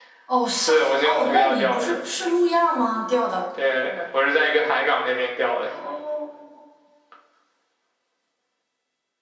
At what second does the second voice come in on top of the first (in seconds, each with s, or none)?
0.5 s